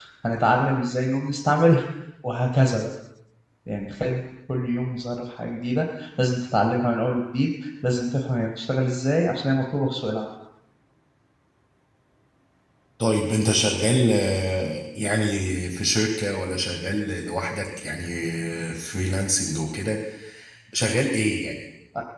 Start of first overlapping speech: none

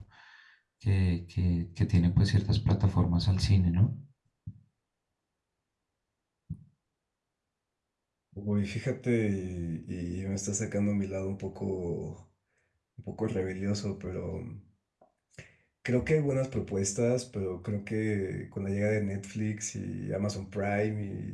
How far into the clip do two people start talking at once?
none

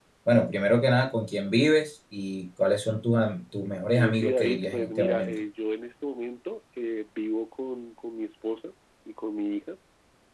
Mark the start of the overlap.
3.9 s

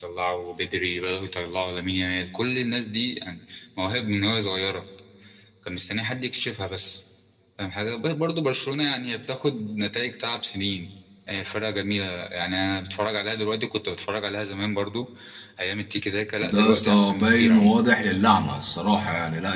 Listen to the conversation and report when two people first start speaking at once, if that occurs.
16.4 s

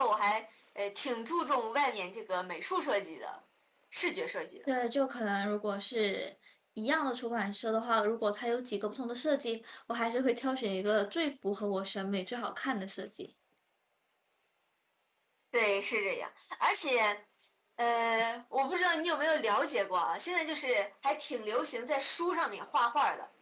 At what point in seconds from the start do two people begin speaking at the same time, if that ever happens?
none

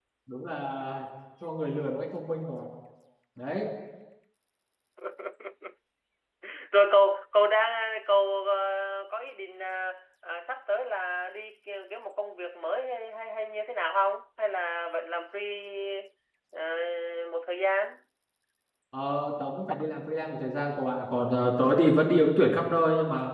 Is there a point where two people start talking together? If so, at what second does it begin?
none

